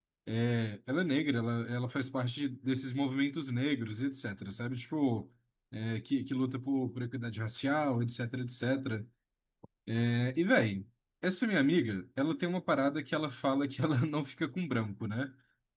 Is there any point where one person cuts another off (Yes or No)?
No